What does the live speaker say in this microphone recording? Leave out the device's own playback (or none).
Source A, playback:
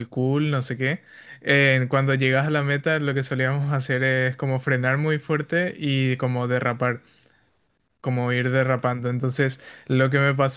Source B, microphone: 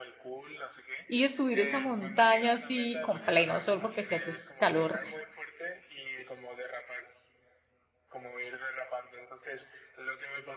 ir a subir esa montaña así con pleno sol porque aquí hace calor,